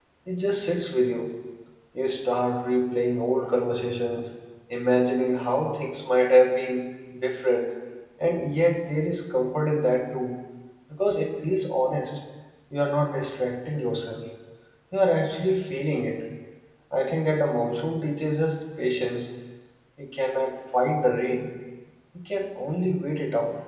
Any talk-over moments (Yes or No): No